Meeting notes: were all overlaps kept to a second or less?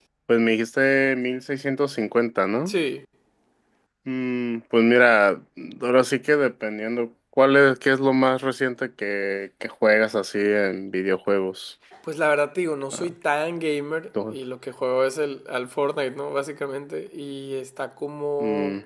Yes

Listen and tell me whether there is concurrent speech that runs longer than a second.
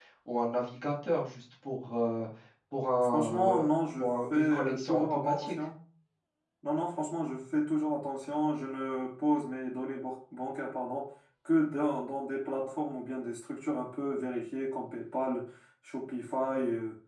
Yes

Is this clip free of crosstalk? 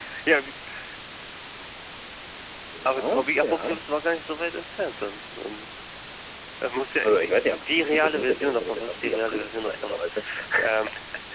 No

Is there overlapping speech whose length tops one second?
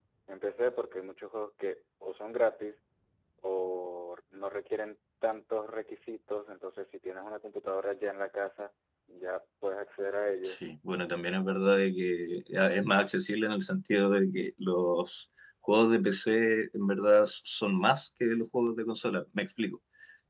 No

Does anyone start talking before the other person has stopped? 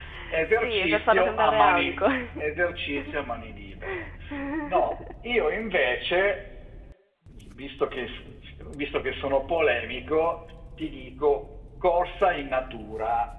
Yes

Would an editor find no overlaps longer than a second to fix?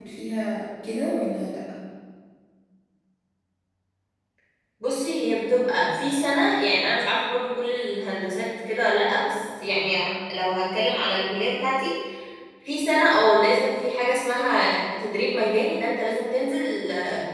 Yes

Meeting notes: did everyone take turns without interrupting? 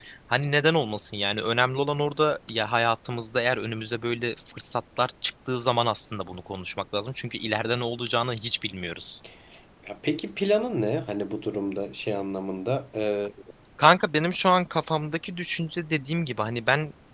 Yes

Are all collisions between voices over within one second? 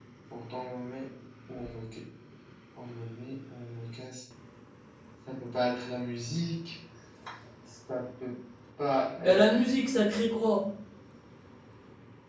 Yes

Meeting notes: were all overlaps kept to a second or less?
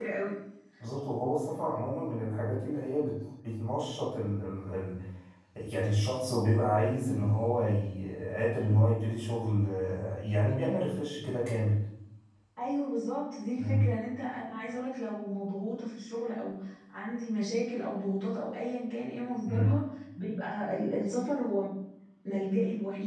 Yes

